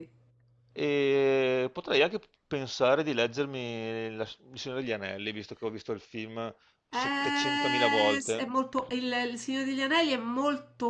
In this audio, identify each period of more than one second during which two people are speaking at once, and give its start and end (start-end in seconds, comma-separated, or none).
6.9-8.4